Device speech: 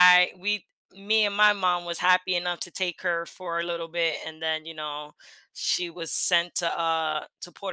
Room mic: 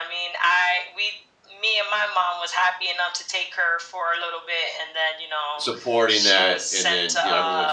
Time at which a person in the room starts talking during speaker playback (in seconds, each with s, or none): 5.6 s